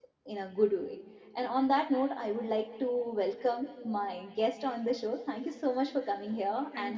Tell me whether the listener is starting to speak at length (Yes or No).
Yes